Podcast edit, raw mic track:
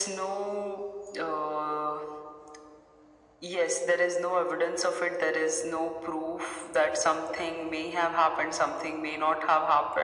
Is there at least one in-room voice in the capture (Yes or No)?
No